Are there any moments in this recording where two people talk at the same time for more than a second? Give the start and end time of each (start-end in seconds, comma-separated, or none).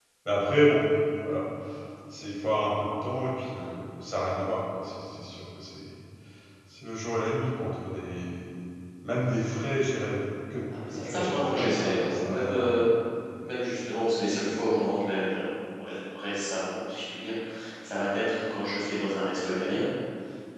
10.9-12.7